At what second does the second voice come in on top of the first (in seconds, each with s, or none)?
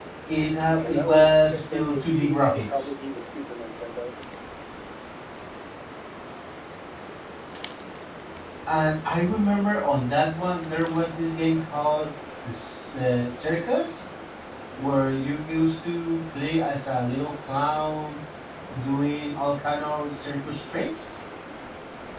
0.7 s